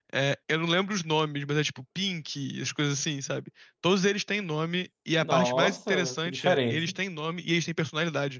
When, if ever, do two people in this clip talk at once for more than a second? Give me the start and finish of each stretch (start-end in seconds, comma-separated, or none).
5.2-6.9